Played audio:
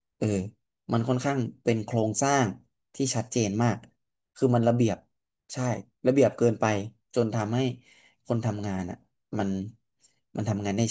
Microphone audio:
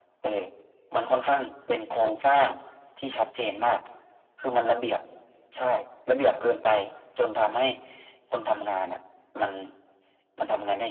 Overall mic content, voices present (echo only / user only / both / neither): echo only